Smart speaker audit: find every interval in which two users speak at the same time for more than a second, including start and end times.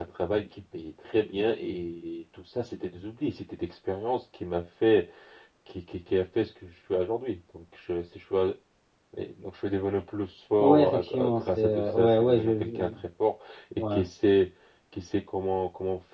10.6-12.9

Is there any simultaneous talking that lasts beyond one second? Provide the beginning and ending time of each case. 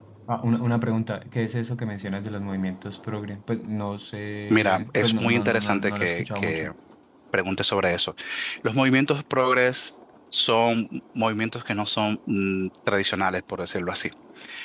4.5-6.7

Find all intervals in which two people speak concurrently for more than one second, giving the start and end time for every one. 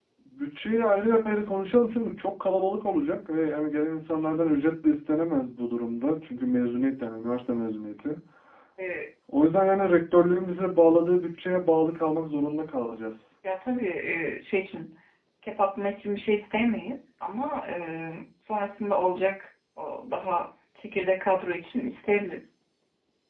none

